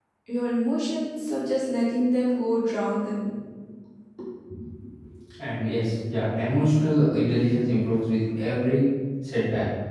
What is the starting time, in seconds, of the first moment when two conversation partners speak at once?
none

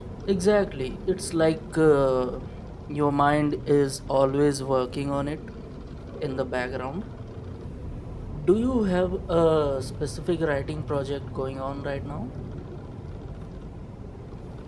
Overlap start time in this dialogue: none

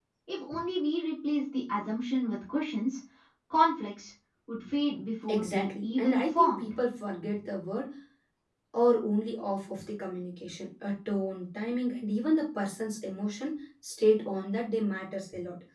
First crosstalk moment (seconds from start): 5.3 s

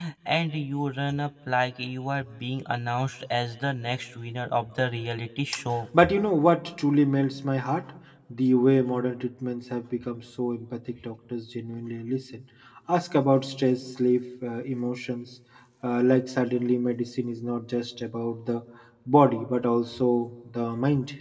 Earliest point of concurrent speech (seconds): none

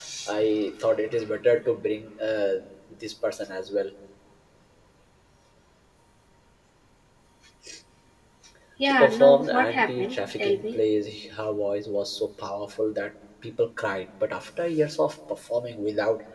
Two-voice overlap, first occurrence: 8.8 s

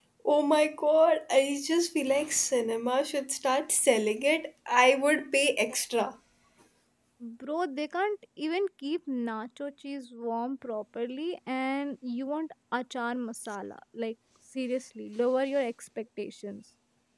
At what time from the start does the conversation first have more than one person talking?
none

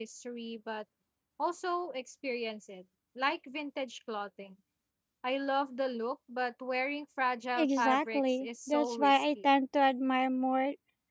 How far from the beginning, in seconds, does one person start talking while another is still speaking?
7.6 s

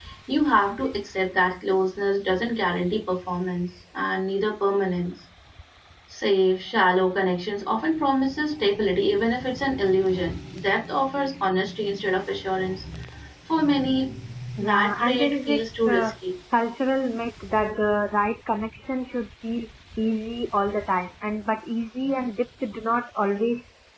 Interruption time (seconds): 14.6 s

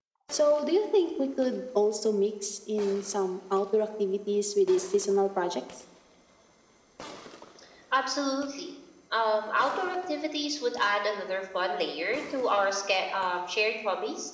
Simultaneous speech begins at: none

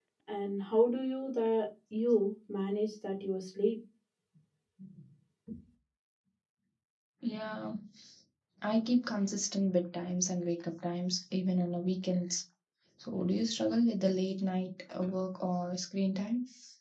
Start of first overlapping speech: none

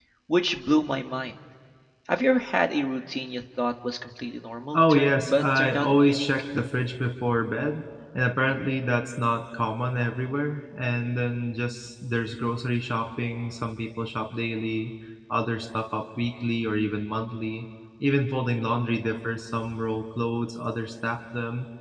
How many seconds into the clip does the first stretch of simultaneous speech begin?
4.7 s

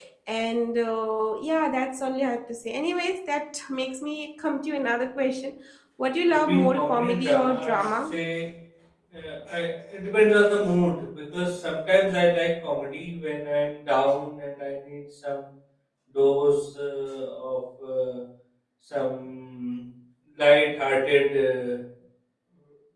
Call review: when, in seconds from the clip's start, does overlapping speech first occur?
6.5 s

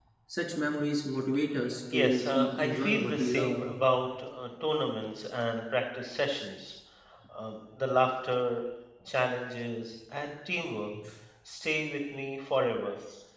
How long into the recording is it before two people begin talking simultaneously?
1.9 s

